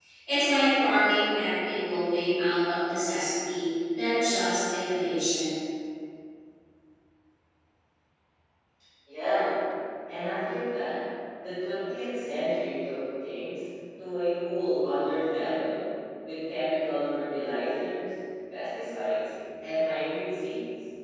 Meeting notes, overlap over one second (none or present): none